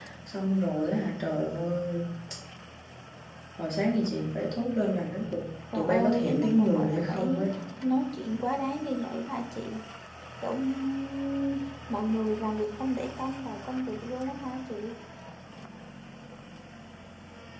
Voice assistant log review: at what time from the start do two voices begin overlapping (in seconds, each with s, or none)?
5.7 s